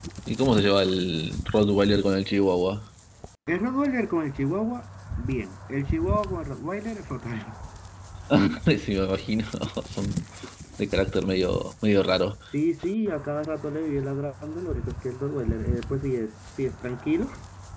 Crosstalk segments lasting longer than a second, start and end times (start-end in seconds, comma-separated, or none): none